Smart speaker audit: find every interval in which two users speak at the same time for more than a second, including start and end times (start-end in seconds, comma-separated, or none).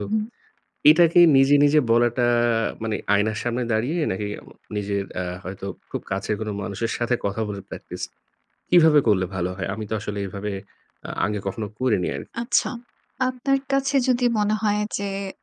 none